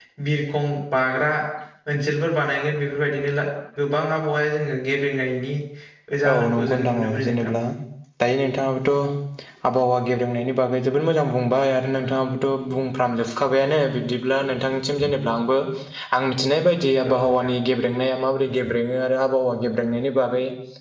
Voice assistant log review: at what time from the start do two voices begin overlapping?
6.3 s

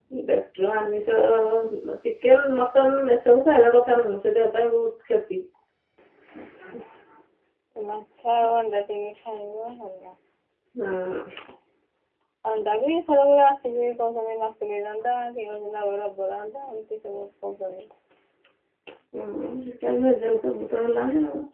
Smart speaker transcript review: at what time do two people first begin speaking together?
none

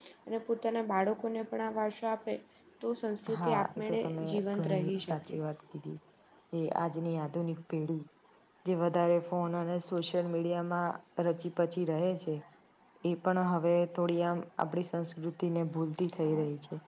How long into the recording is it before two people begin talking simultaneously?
3.4 s

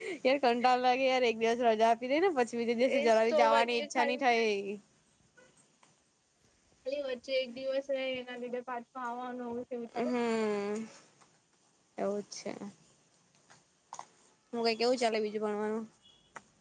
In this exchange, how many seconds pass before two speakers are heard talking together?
2.9 s

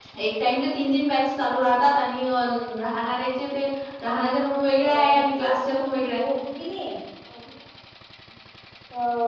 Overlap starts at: 4.8 s

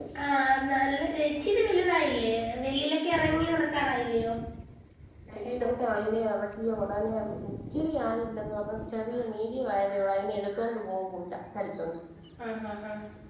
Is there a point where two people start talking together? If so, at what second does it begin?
none

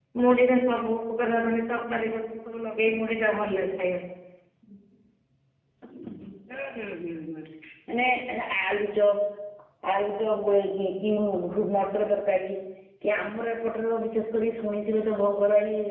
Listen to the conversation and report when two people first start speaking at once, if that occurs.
none

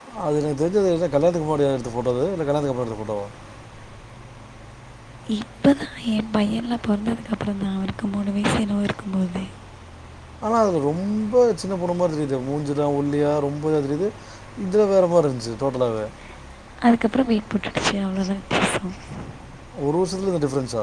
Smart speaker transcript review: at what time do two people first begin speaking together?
none

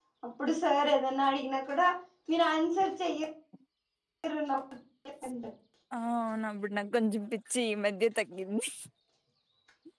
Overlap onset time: none

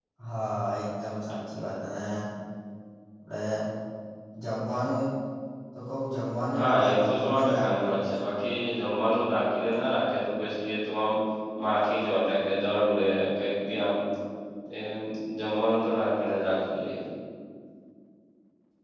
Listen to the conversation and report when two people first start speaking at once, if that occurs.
6.6 s

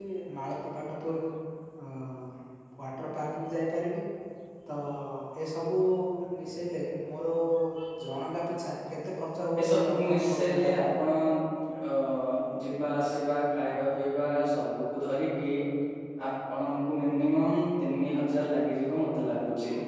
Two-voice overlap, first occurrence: 9.5 s

